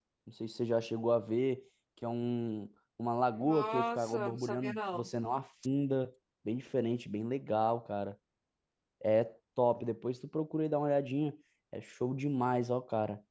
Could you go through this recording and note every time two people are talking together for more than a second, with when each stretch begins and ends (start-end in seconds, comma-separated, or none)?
3.4-5.1